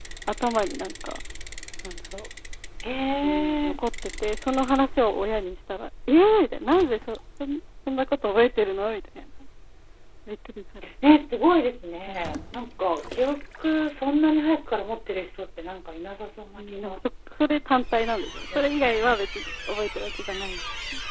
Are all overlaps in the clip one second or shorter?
Yes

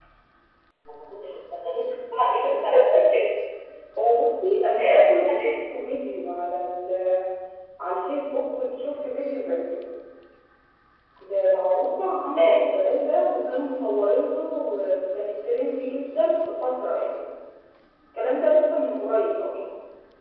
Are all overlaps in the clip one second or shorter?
Yes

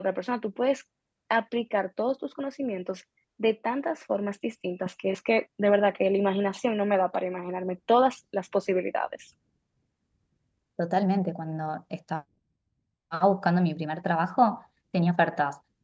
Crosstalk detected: No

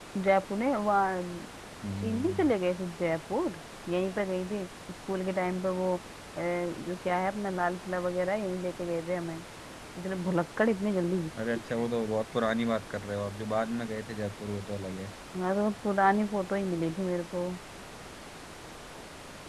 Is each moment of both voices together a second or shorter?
Yes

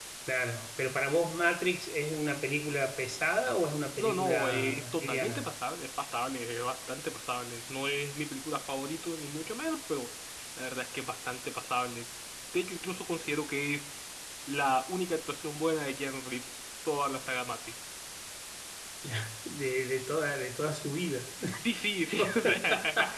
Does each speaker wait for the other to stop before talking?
No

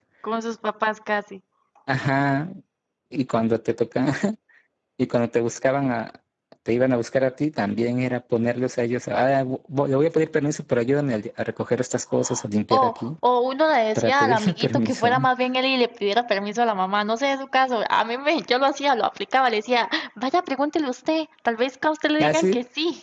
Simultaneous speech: Yes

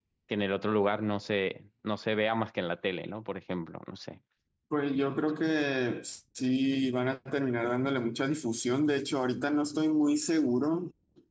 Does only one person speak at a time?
Yes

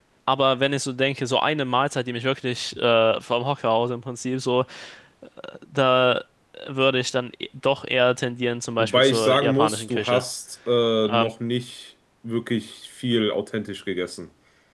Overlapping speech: Yes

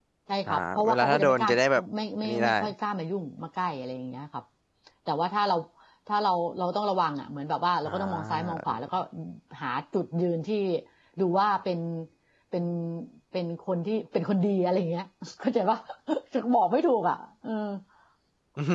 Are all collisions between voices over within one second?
No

